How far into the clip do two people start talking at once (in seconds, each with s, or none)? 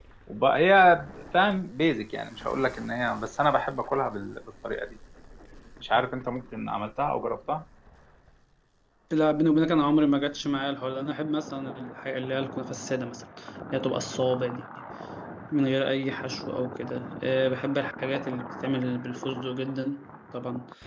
none